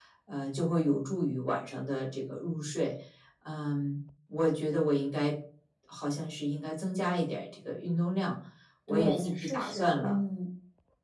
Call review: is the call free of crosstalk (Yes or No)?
No